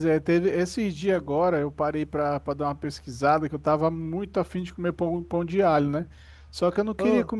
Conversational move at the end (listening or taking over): listening